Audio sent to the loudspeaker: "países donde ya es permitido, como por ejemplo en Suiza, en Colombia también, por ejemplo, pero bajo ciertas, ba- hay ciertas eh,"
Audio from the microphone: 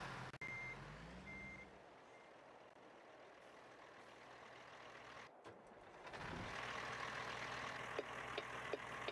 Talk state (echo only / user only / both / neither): neither